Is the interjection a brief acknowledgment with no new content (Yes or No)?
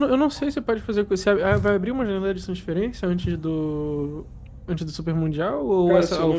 No